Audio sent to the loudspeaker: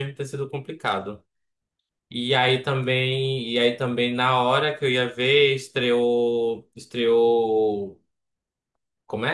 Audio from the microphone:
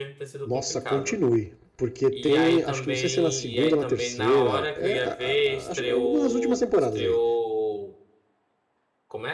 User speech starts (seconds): 0.4 s

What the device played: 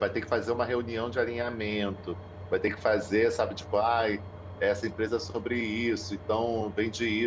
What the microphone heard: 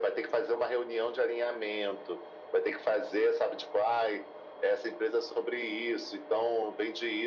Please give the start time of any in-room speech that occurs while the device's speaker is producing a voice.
none

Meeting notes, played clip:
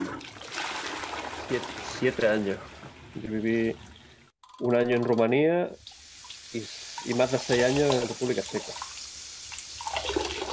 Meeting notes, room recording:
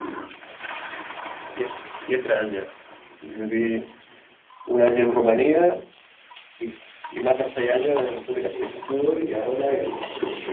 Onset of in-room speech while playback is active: 8.5 s

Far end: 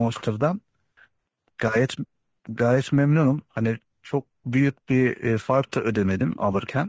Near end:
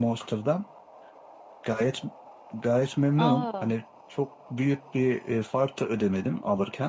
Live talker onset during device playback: 3.2 s

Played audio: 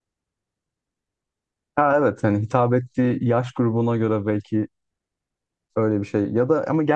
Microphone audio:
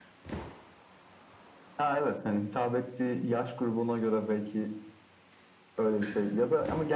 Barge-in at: none

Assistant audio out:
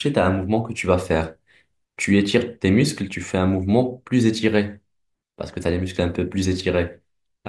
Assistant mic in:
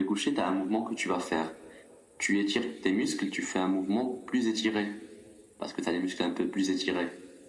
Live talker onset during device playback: none

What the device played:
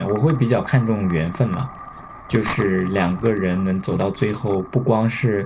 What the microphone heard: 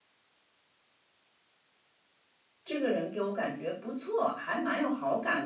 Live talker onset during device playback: 2.6 s

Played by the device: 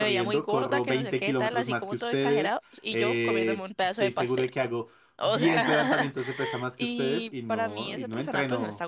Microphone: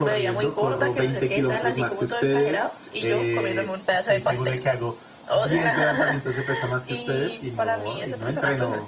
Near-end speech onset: none

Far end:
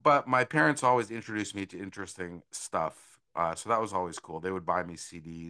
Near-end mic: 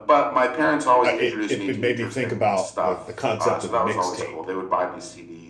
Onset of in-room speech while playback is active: 1.0 s

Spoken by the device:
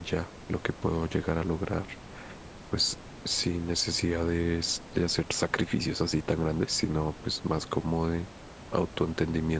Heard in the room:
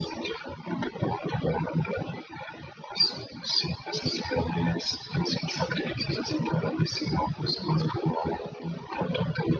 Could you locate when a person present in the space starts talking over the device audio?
none

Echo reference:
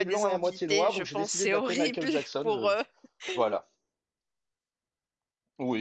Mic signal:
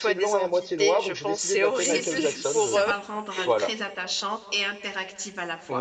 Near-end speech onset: 1.7 s

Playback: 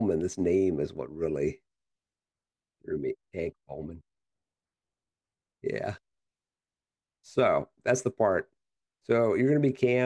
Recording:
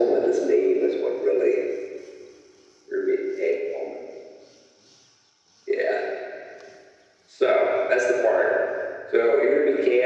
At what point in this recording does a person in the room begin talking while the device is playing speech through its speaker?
none

